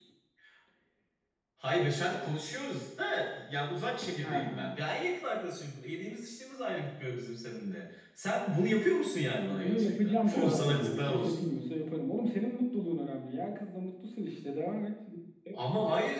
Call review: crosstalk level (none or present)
present